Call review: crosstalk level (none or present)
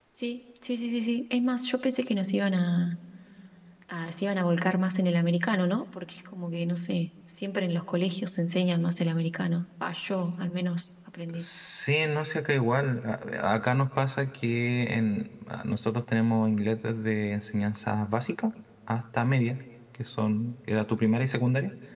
none